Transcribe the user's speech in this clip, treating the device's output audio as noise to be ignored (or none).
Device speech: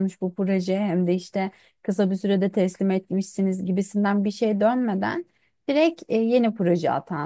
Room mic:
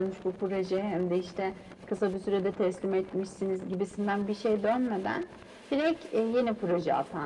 none